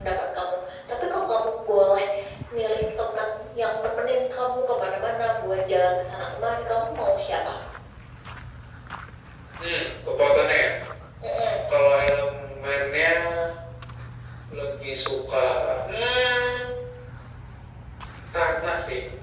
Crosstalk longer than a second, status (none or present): none